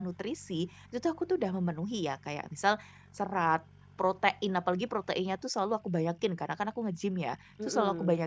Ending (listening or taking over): listening